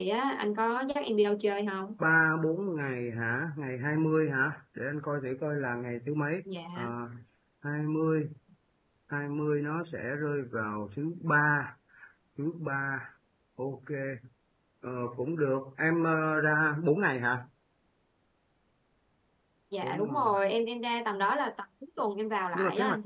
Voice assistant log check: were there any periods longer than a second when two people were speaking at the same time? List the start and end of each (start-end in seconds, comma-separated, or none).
none